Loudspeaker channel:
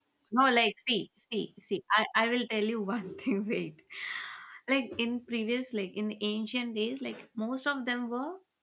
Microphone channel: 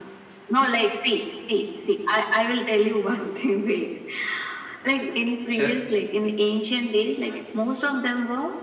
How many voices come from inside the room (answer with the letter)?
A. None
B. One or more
B